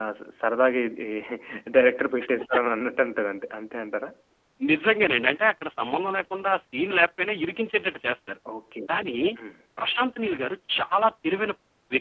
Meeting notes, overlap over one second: none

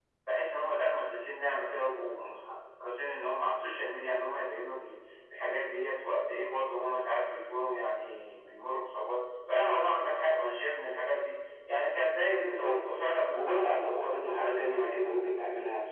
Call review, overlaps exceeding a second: present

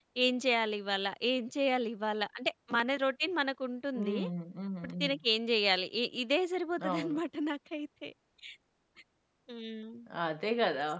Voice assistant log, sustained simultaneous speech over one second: none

